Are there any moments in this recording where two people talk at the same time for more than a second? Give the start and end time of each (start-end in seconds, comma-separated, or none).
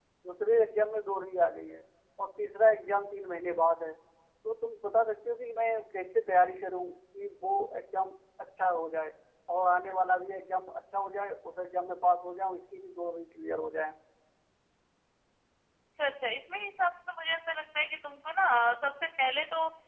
none